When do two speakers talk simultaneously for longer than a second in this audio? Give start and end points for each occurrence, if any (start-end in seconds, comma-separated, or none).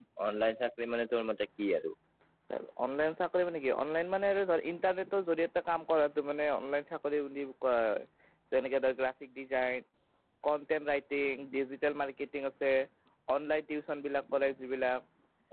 none